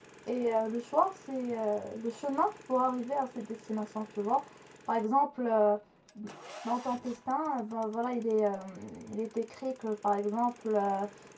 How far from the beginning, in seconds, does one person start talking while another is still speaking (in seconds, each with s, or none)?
none